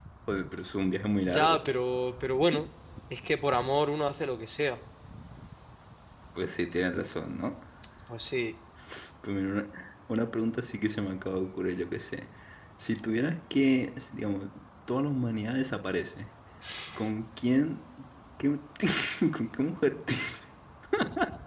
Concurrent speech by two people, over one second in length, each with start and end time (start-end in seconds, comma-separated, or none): none